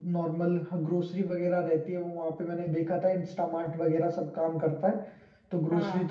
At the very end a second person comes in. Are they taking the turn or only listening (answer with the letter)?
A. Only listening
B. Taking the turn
A